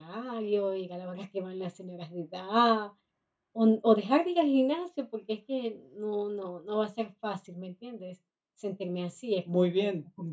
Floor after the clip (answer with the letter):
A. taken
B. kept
A